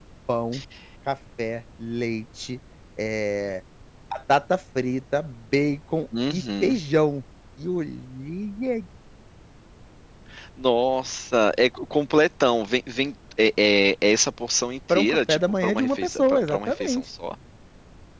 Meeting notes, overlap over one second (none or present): present